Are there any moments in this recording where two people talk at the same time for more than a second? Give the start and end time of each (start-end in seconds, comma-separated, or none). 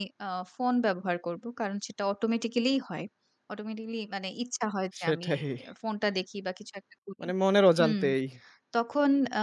none